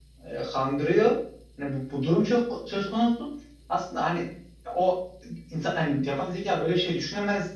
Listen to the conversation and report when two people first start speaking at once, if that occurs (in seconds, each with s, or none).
none